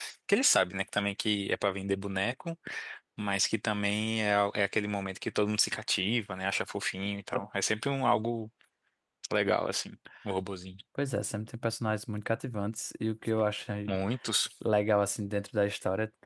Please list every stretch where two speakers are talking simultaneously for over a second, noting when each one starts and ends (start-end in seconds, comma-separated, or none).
none